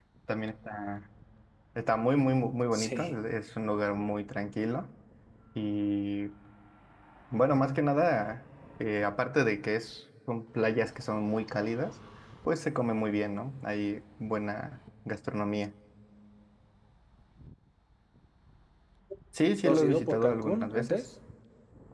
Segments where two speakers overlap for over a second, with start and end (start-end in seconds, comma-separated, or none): 19.6-21.0